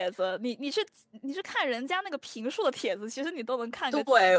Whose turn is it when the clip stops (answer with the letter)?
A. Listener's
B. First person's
A